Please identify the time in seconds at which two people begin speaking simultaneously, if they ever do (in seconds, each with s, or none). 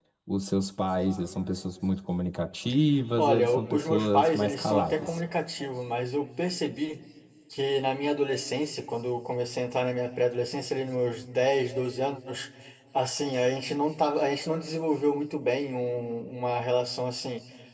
3.2 s